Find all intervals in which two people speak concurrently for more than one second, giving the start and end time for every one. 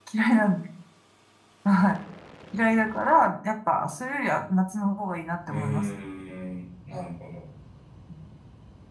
none

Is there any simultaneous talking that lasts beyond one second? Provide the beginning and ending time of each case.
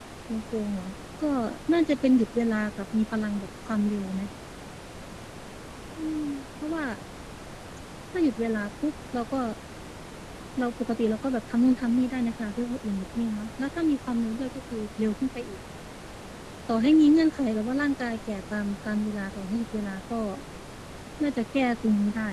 none

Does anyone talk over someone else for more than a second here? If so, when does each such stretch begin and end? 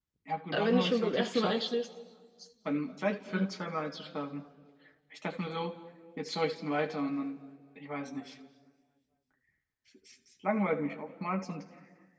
0.5-1.8

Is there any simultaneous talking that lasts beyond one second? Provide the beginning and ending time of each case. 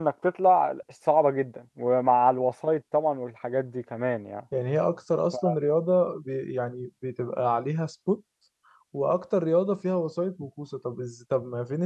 none

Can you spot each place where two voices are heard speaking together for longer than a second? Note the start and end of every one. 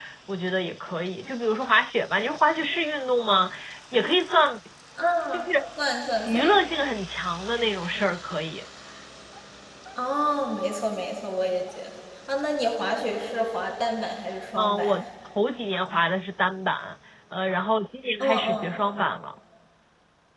none

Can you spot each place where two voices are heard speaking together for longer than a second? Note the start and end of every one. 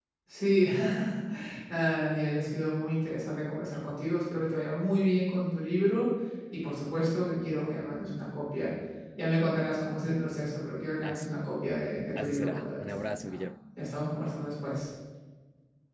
12.2-13.4

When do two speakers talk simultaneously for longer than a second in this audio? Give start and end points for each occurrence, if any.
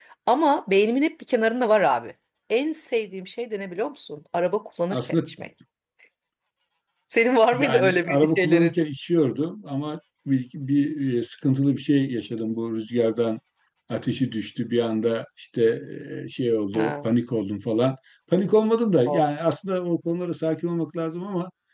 7.5-8.8

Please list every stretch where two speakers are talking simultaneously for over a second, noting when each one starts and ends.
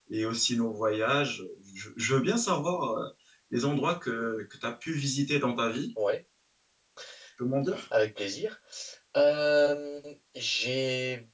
none

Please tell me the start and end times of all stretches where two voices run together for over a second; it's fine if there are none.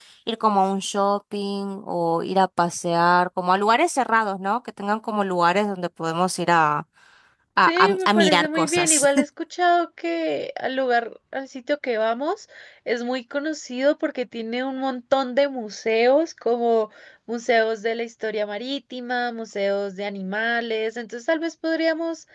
7.7-9.1

